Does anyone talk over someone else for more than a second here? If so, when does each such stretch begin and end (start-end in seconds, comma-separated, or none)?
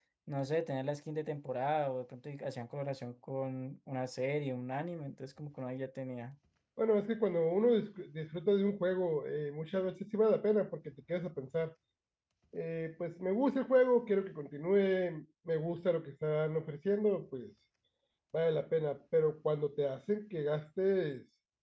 none